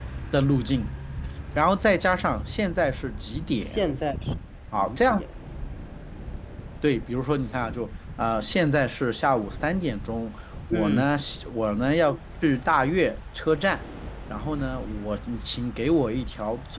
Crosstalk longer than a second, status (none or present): none